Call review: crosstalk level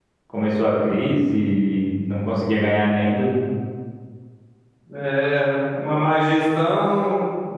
none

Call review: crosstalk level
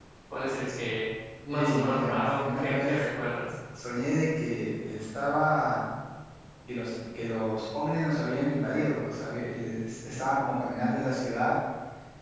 present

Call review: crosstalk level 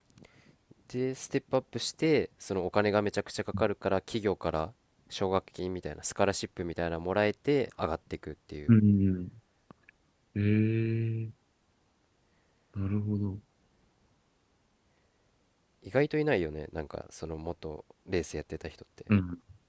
none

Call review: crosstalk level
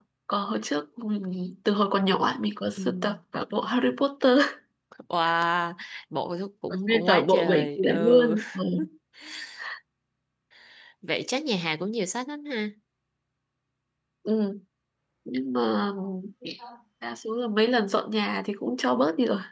present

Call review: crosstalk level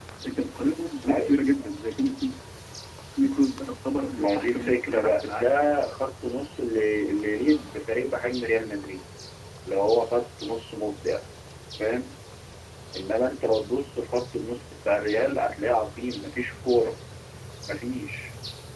present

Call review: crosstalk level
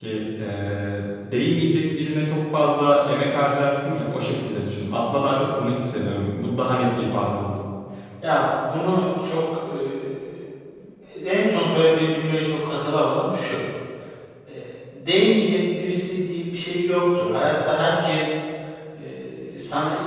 none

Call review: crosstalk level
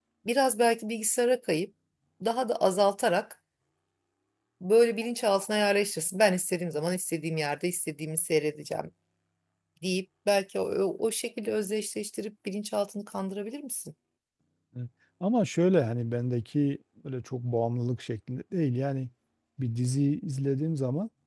none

